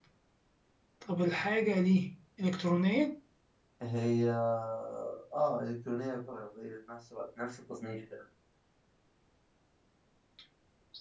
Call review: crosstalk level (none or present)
none